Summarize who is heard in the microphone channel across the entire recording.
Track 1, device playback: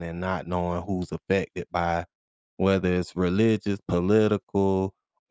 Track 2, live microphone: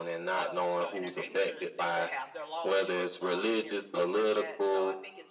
both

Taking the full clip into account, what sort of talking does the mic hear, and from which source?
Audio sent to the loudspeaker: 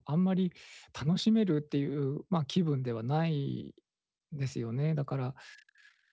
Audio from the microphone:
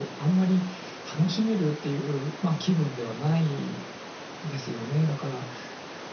echo only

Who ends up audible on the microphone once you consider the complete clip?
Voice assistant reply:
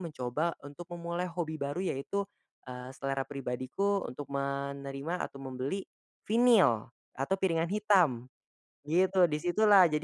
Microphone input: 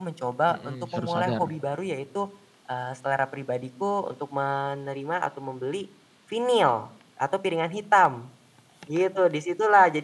both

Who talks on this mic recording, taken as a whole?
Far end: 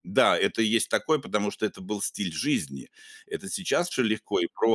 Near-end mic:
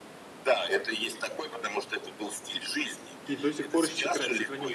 both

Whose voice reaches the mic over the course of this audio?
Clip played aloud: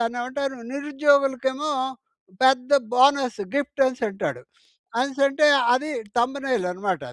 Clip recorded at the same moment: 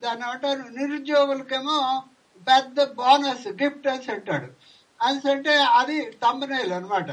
echo only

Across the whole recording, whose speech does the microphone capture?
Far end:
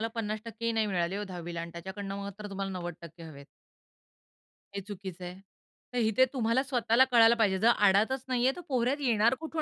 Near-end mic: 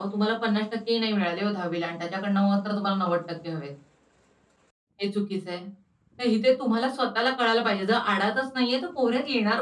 echo only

